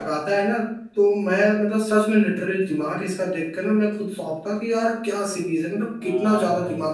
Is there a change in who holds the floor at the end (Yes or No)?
Yes